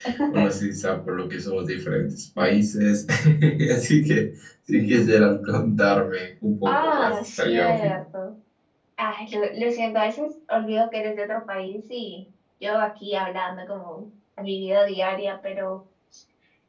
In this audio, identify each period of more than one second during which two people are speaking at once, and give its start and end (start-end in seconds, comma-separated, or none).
6.7-7.9